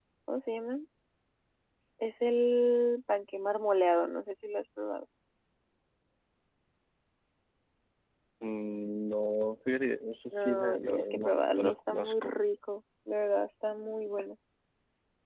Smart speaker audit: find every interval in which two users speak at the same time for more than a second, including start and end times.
10.3-12.3

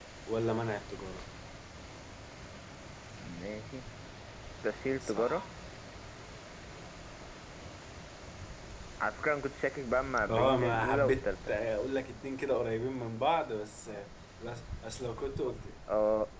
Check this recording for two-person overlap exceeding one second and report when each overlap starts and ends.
10.3-11.5

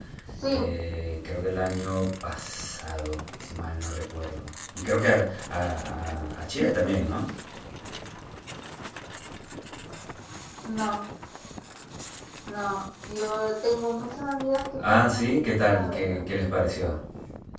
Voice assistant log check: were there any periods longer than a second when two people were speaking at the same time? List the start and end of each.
14.9-16.2

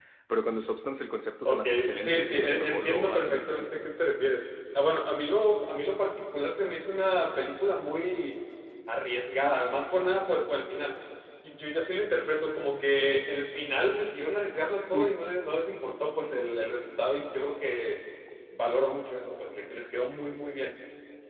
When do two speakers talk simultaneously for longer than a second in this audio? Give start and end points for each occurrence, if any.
1.5-3.8

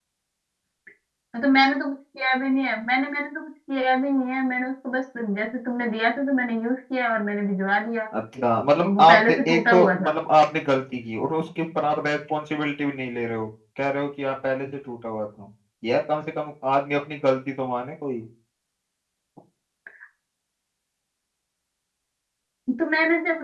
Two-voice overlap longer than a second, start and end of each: 8.8-10.1

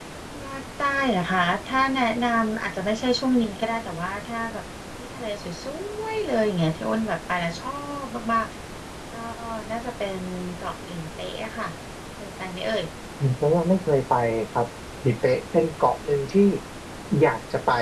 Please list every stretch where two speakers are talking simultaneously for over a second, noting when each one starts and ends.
none

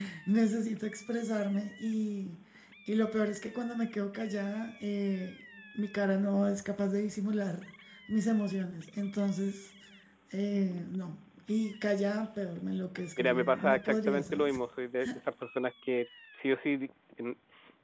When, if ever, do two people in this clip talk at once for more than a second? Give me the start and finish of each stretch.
13.2-14.6

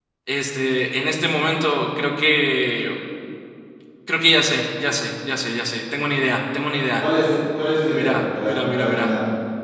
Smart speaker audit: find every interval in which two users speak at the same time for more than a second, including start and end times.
7.9-9.1

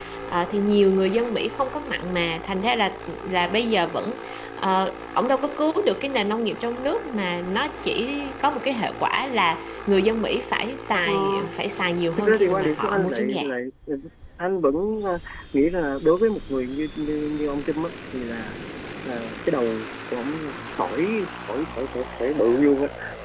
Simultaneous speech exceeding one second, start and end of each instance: 12.2-13.4

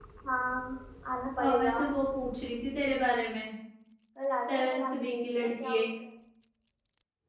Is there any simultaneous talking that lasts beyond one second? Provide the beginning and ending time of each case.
4.5-5.9

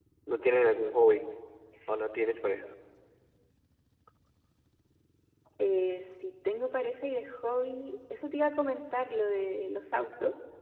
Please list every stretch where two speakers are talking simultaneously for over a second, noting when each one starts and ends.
none

